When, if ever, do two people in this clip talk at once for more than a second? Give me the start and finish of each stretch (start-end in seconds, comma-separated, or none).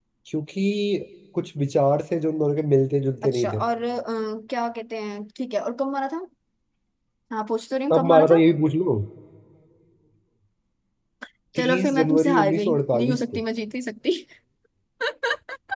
11.6-13.4